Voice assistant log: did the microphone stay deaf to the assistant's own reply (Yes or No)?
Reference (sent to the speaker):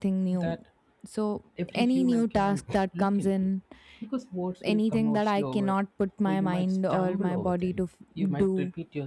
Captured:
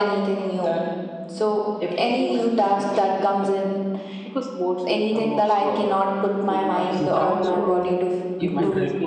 No